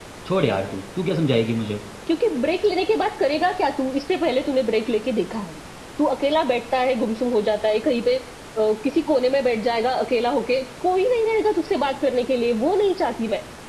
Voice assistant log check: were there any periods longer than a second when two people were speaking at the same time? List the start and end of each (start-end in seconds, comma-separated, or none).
none